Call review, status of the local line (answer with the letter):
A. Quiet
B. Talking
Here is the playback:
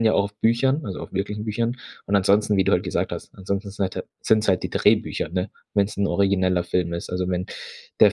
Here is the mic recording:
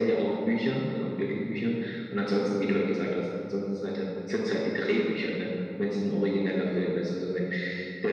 A